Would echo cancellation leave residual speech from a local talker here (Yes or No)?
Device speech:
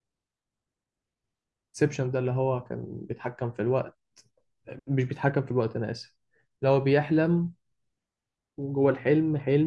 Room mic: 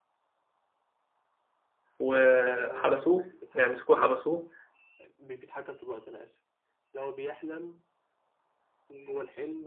Yes